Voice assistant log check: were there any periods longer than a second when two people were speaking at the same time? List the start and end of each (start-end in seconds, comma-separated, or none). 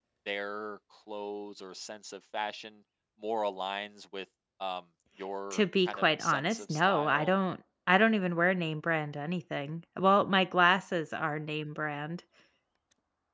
5.5-7.3